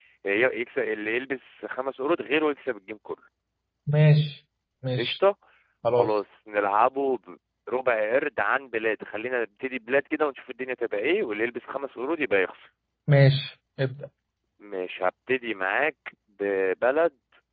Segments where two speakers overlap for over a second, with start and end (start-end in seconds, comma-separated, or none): none